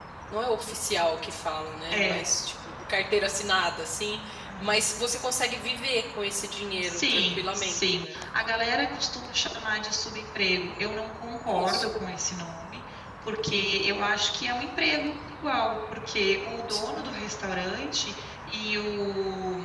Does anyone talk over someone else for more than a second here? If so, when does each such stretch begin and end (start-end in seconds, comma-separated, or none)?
6.8-8.2